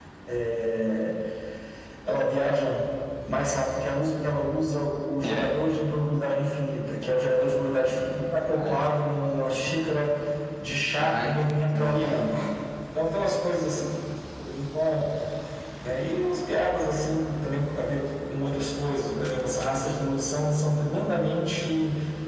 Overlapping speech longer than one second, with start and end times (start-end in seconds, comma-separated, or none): 11.0-12.3